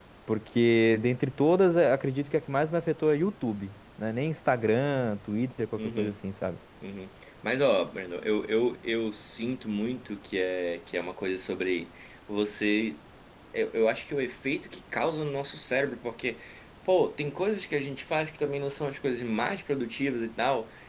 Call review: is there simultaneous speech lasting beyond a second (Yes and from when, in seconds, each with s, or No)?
No